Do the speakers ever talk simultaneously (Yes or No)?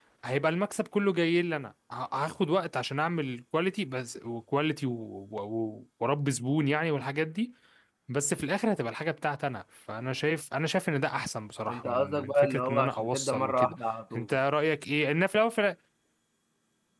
Yes